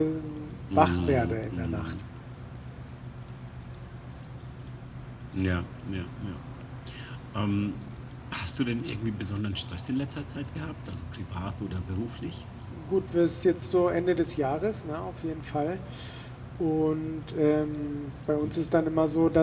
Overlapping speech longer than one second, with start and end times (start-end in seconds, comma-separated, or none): 0.8-2.0